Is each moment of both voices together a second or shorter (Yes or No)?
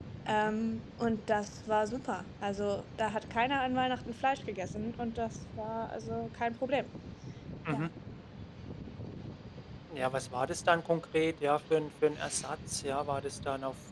Yes